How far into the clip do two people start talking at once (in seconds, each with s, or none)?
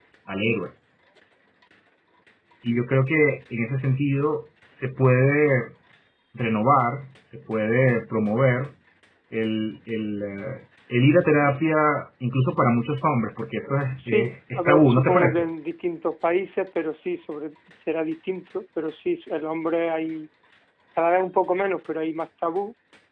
14.0 s